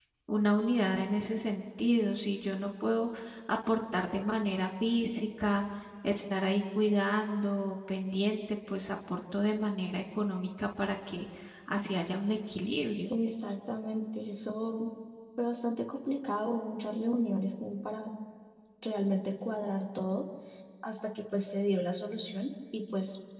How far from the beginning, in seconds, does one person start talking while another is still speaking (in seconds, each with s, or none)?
none